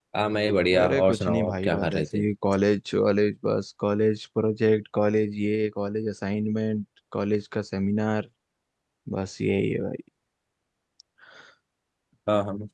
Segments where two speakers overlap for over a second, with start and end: 0.8-2.2

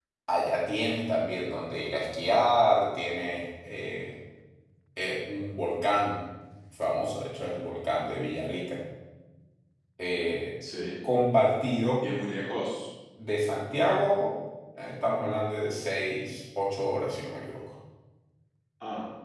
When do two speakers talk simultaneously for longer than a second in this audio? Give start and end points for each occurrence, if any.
none

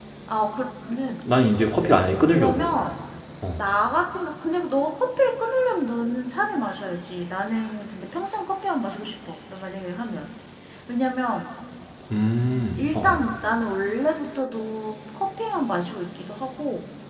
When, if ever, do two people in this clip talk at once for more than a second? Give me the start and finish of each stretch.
none

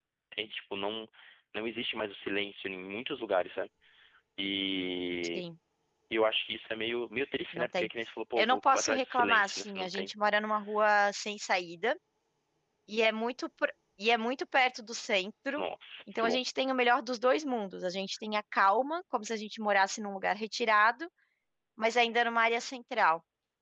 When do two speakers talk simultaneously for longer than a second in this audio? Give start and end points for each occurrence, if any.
8.4-10.1

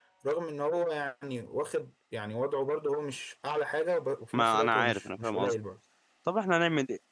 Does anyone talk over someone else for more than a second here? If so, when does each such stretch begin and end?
4.3-5.5

